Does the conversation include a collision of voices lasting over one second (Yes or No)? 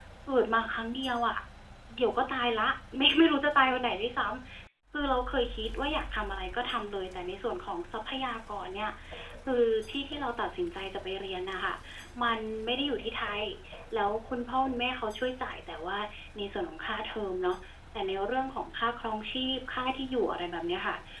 No